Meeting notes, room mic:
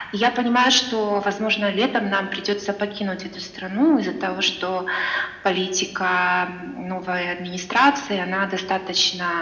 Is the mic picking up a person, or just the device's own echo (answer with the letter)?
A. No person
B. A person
A